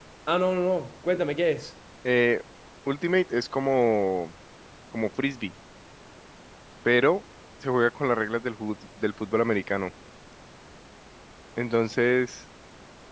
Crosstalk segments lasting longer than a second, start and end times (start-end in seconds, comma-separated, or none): none